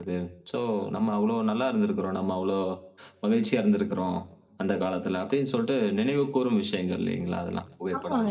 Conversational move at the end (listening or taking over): taking over